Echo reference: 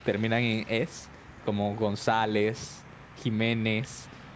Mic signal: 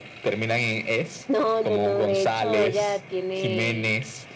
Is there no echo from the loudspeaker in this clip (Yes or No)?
No